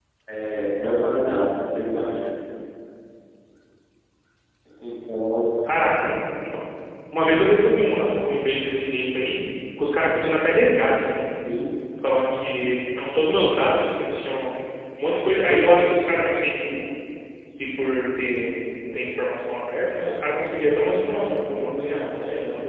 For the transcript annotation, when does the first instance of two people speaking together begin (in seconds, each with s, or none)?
none